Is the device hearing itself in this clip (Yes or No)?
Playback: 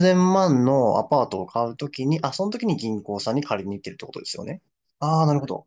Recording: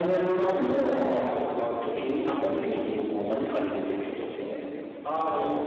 Yes